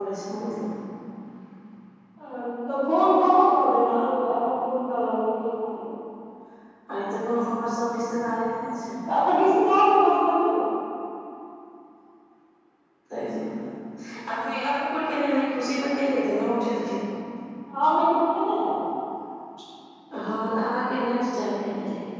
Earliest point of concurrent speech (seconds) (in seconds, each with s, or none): none